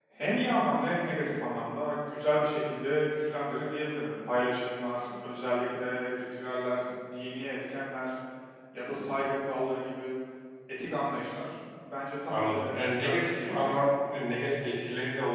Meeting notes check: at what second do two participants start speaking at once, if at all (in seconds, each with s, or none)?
12.3 s